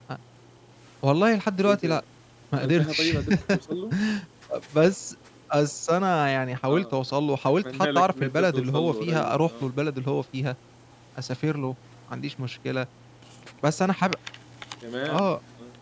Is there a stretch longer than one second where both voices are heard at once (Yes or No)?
Yes